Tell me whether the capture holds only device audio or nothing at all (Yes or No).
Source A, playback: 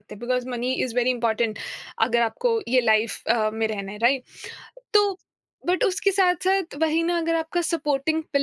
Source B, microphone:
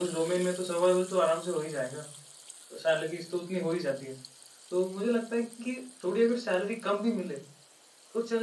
No